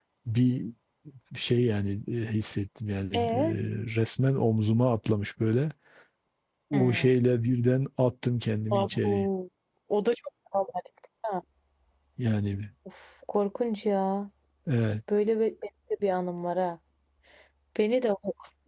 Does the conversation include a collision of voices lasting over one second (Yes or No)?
No